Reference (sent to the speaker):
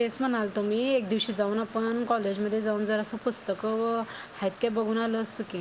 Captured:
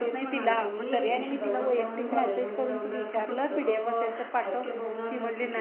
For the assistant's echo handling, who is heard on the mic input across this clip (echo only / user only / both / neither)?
both